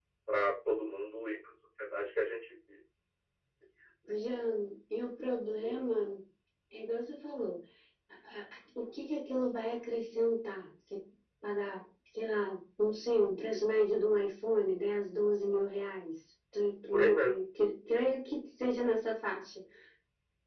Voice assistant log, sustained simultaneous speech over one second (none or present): none